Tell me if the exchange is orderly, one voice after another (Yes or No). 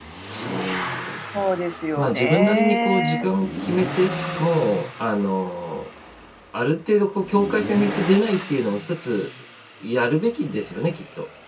No